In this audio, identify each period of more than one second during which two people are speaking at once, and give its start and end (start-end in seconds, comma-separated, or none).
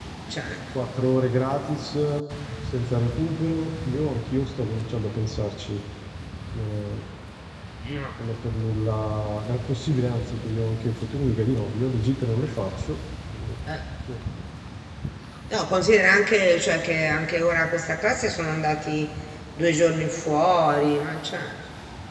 none